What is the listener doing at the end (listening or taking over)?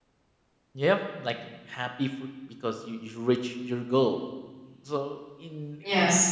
listening